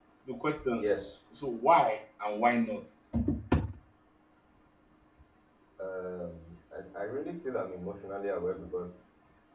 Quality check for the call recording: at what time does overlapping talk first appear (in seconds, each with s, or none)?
none